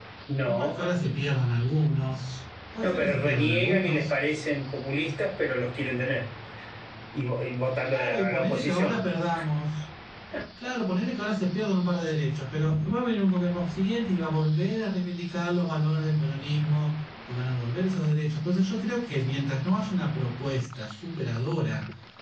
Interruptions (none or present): present